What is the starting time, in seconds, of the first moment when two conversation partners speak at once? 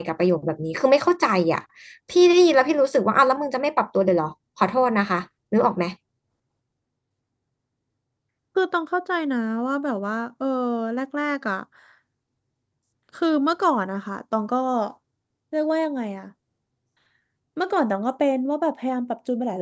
none

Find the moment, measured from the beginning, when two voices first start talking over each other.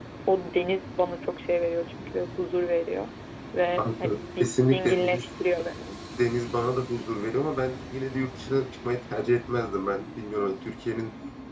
4 s

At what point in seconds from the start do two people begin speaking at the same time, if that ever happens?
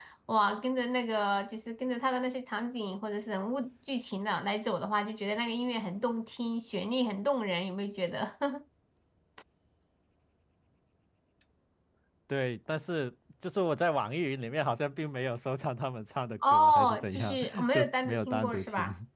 16 s

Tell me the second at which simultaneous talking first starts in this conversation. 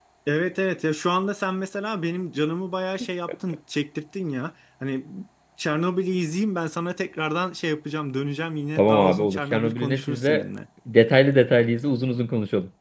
9 s

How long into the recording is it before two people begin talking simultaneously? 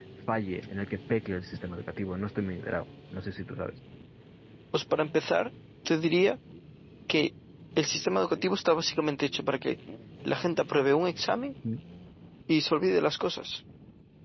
none

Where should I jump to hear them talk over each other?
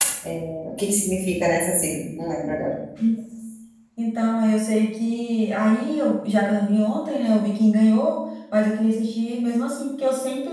none

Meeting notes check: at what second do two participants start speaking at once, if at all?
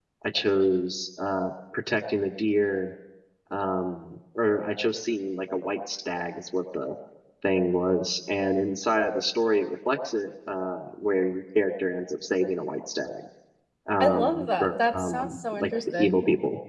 14 s

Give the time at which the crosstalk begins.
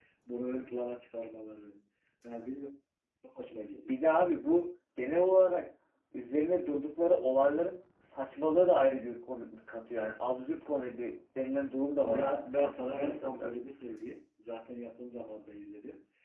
12 s

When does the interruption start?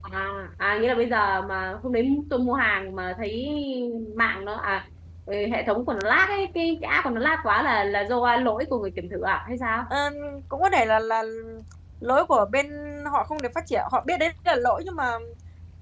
none

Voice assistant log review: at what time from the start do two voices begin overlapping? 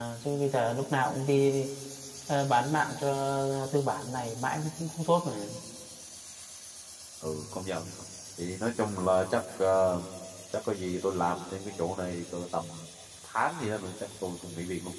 none

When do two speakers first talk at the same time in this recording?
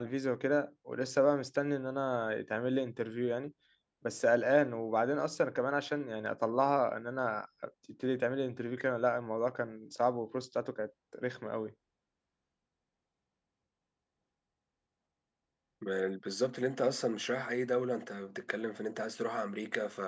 none

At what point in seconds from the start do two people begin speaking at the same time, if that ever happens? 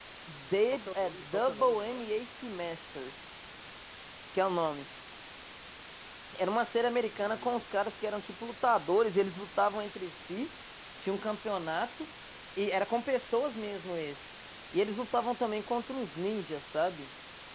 1 s

